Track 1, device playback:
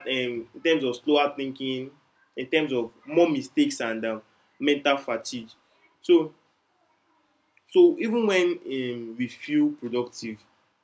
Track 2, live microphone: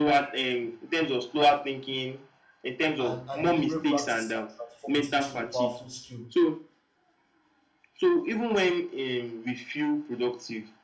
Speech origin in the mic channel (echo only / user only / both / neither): both